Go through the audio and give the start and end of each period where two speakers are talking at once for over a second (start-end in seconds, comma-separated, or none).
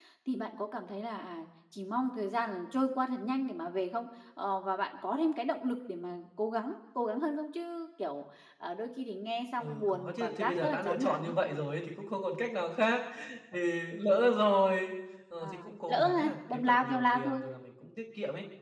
9.6-11.3, 15.4-17.4